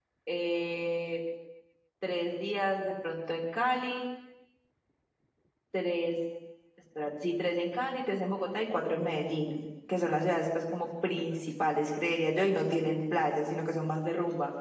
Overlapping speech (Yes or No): No